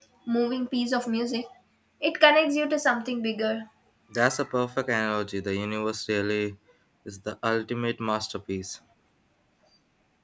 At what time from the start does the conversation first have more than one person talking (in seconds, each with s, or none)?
none